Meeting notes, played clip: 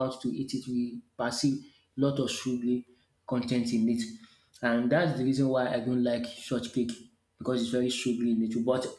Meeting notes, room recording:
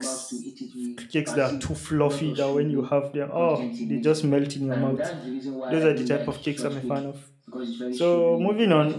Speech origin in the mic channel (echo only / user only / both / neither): both